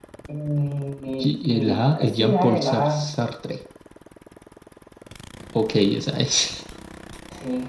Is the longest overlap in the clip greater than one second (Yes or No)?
Yes